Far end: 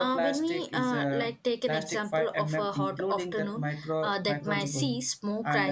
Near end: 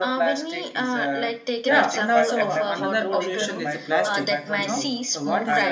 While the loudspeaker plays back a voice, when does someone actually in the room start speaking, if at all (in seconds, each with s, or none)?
1.6 s